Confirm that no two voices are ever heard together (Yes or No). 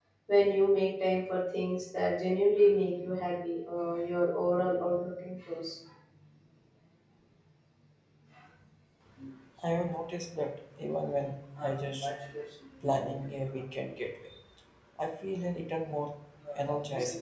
Yes